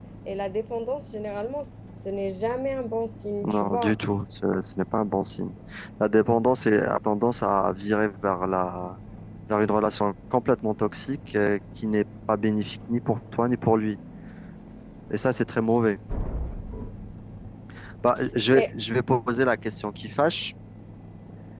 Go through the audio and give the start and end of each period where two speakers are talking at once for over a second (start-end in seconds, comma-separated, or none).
none